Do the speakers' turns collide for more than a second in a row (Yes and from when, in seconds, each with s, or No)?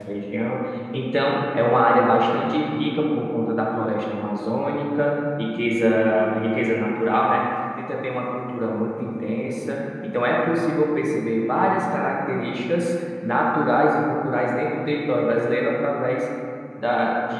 No